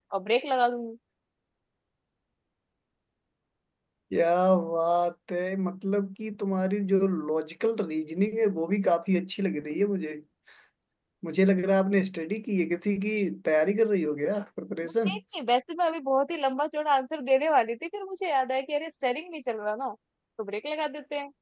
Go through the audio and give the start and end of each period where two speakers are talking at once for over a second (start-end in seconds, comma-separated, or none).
none